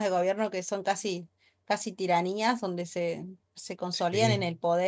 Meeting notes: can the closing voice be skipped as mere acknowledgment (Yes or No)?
Yes